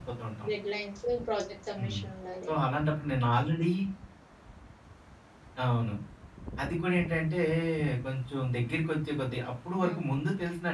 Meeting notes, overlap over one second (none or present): none